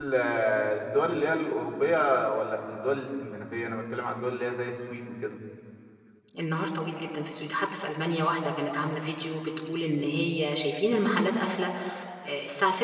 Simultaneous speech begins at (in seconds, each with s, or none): none